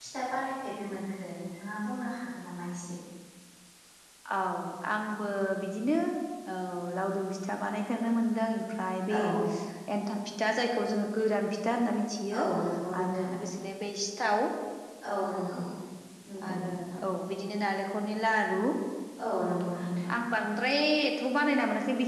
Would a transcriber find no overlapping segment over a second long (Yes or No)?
Yes